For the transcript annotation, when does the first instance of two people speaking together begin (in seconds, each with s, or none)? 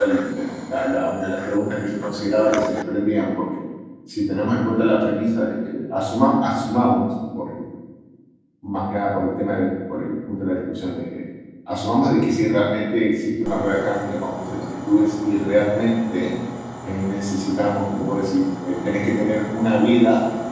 none